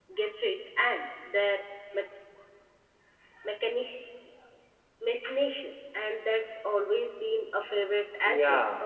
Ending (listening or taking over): taking over